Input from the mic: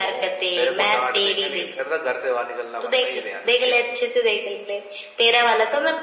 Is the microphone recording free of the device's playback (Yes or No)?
No